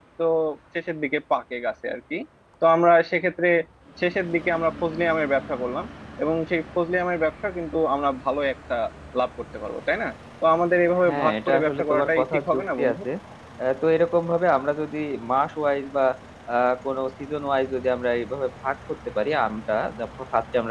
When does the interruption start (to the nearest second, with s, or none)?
11 s